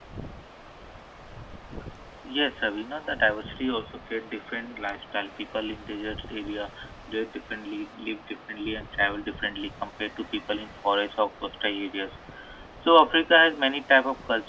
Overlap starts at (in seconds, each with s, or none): none